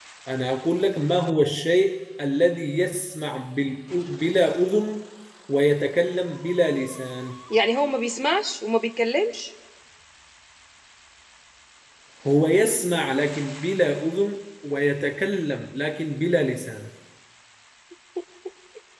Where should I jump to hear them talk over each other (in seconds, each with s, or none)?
none